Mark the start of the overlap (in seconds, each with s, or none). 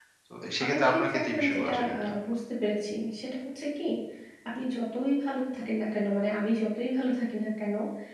0.6 s